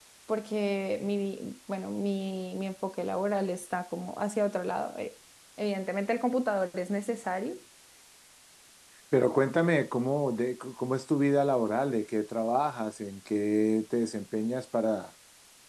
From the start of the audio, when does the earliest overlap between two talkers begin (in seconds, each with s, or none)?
none